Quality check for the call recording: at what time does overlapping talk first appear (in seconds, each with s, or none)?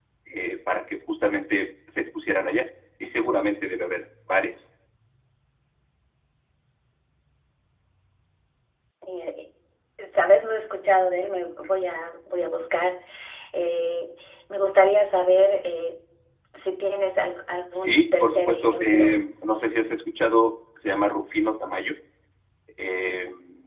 17.7 s